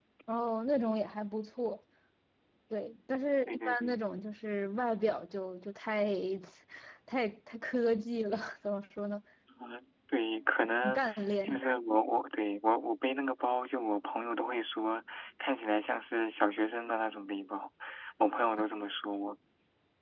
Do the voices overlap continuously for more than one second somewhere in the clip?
No

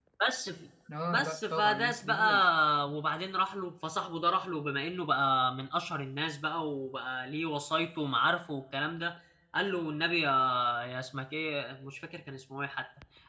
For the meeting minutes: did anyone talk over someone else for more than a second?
Yes, from 1.1 s

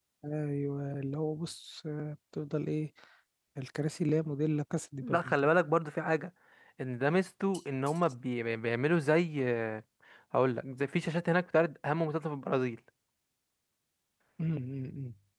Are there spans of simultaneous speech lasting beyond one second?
No

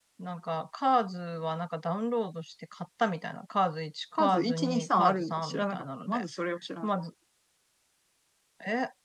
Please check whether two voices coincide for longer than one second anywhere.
Yes, from 4.2 s

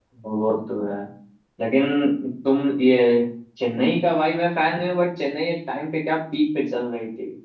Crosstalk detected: No

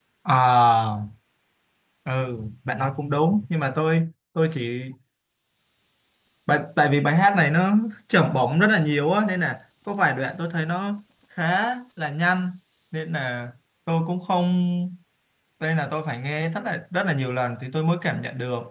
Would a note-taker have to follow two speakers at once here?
No

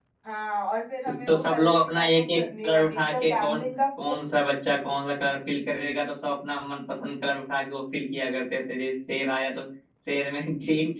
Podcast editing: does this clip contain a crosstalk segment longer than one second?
Yes, from 1.1 s

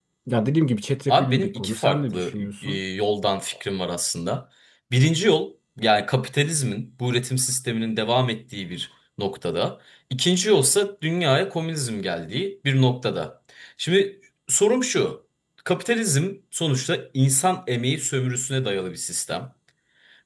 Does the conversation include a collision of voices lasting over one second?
Yes, from 1.1 s

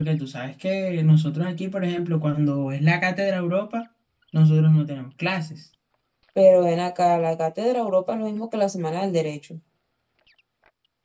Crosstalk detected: No

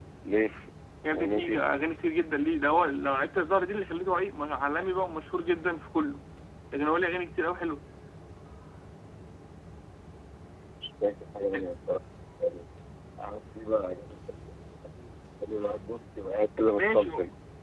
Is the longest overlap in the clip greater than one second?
No

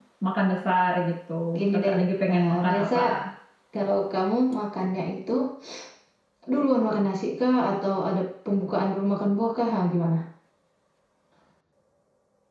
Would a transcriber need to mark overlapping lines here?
Yes, from 1.7 s

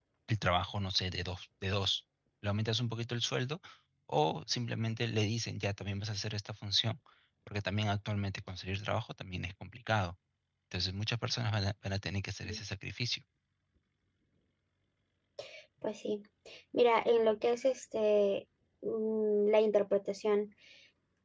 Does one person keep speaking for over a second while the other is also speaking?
No

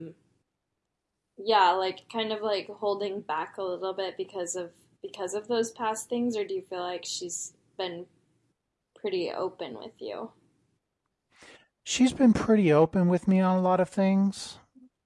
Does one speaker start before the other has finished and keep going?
No

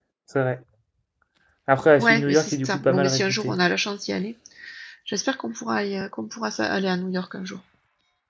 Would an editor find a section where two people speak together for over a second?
Yes, from 2.0 s

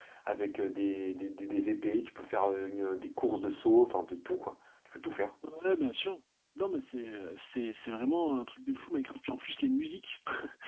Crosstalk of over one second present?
No

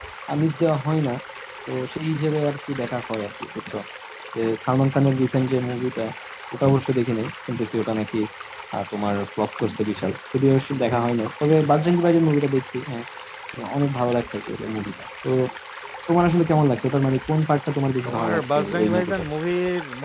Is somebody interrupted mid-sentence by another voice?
Yes, from 18.1 s

